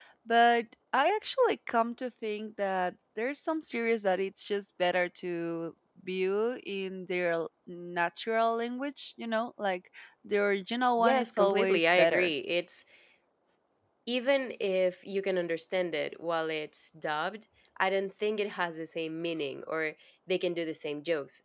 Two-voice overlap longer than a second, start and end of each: 11.0-12.3

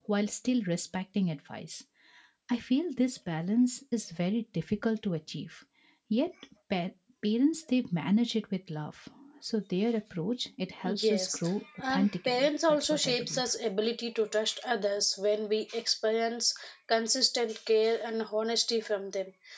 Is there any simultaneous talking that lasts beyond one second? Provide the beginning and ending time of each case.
11.9-13.4

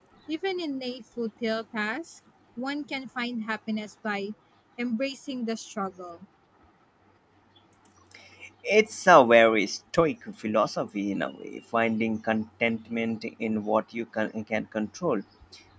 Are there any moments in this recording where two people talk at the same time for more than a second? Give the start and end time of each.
none

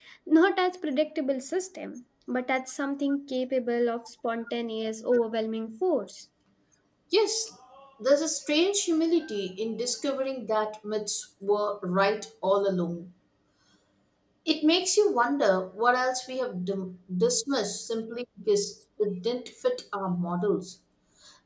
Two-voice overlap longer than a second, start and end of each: none

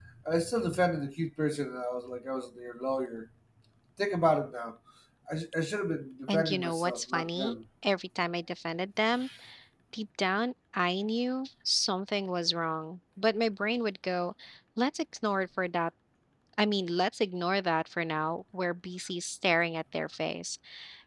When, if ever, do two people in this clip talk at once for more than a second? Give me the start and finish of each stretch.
6.3-7.5

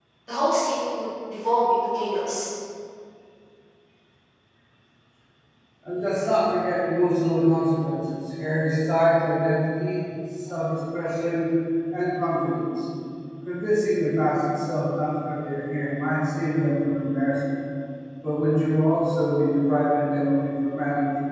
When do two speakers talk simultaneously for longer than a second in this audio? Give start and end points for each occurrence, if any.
none

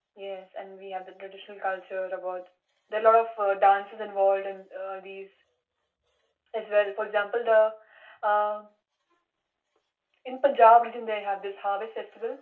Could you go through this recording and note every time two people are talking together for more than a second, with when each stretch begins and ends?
none

